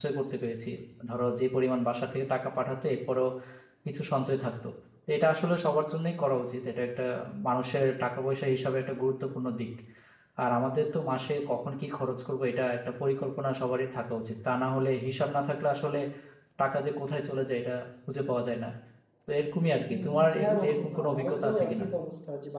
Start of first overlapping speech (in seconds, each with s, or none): 19.9 s